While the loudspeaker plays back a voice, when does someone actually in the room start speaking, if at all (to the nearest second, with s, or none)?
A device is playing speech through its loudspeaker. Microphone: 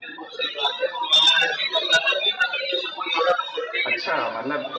4 s